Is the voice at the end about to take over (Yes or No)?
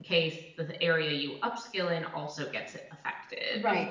Yes